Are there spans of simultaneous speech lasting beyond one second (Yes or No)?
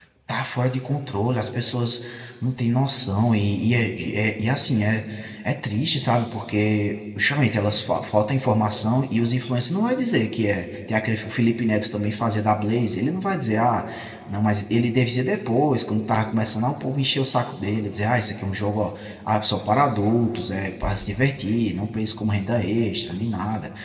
No